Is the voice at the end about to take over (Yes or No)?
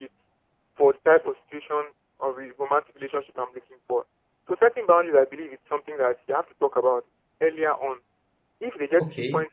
No